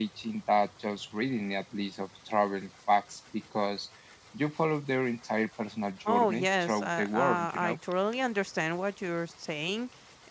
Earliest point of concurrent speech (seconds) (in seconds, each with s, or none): 6.0 s